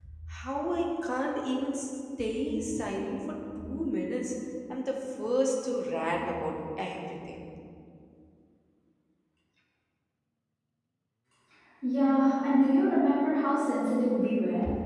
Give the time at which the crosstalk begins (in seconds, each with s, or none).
none